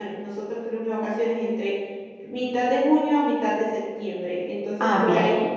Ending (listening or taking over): listening